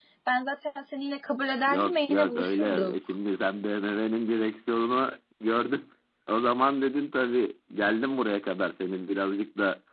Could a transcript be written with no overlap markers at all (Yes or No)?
No